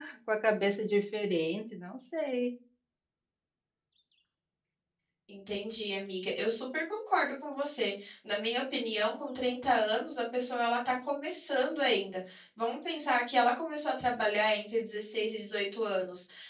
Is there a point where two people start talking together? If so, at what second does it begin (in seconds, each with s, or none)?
none